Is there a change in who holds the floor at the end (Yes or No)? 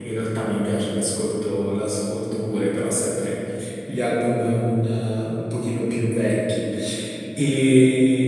No